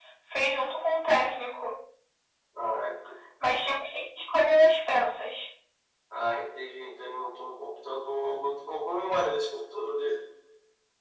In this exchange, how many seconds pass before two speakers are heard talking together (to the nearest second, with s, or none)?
none